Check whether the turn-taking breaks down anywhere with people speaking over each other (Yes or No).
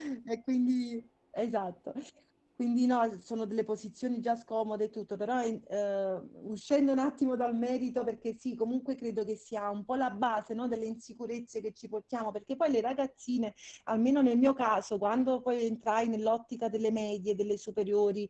No